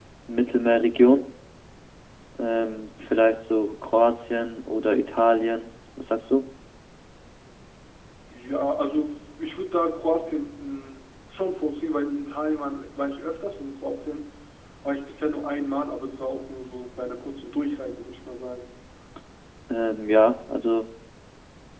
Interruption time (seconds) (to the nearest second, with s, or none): none